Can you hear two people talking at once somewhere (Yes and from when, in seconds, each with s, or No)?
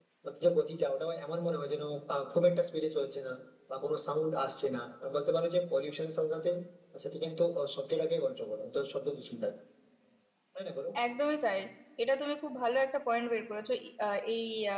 No